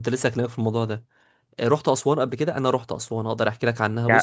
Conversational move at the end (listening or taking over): taking over